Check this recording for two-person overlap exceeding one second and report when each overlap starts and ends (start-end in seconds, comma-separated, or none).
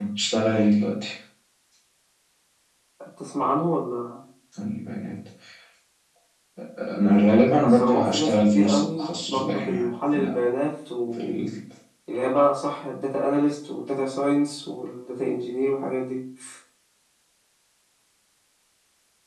7.6-10.5